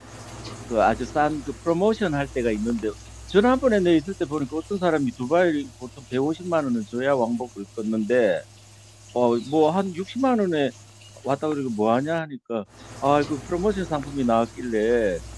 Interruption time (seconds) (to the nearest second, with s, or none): none